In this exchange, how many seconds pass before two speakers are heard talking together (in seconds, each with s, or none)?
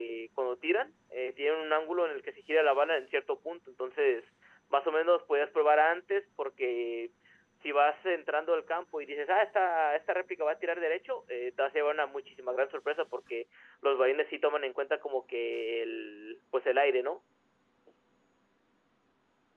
none